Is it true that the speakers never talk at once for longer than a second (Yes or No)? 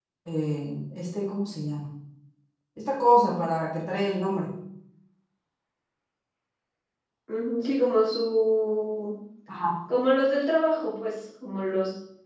Yes